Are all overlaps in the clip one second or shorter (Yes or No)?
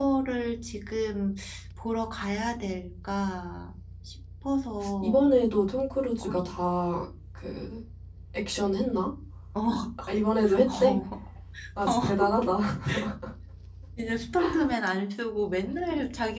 Yes